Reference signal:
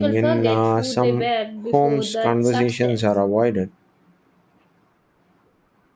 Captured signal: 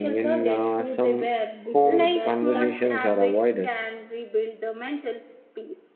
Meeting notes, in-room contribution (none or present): present